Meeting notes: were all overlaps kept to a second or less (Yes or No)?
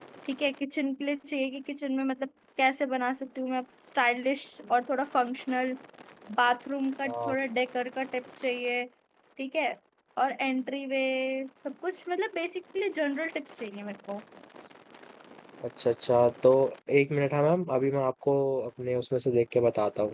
Yes